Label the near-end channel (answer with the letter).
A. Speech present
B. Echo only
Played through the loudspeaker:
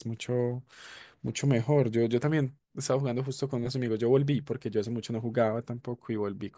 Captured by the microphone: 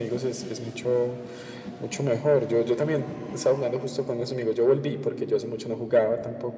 B